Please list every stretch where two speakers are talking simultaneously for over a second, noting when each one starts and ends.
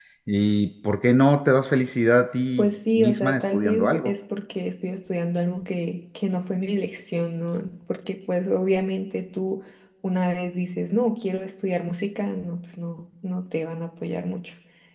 2.6-4.1

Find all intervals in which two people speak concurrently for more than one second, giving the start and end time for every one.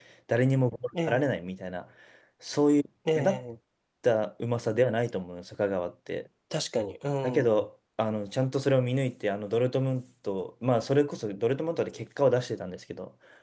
none

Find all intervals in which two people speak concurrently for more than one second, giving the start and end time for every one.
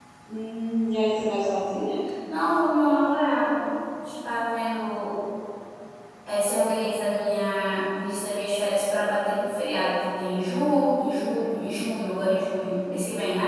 none

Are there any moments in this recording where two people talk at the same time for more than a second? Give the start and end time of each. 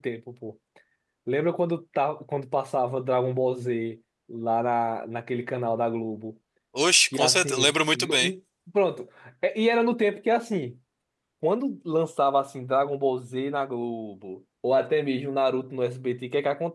7.1-8.3

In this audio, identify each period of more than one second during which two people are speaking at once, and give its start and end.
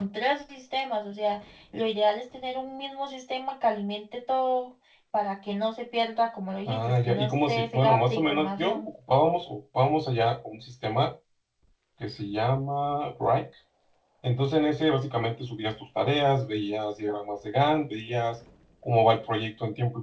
6.7-8.9

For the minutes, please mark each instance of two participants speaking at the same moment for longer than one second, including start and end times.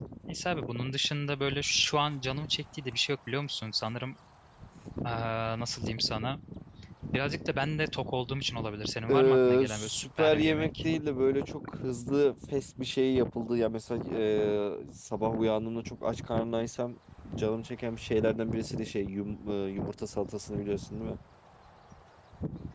9.1-10.7

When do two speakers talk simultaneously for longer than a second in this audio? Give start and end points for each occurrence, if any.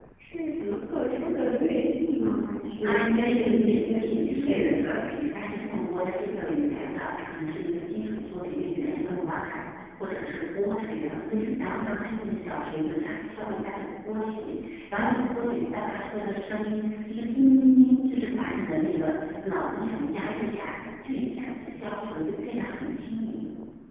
2.8-5.1

